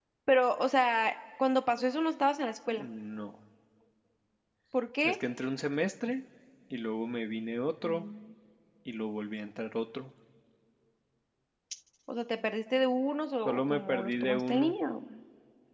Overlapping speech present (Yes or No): Yes